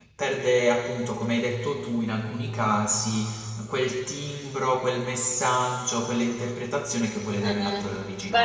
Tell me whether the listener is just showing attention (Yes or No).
No